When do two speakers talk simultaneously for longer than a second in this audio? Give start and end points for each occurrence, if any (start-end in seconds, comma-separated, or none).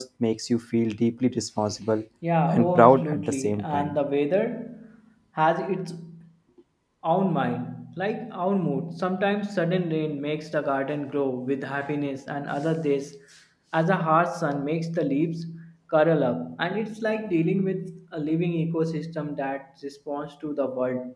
2.5-4.0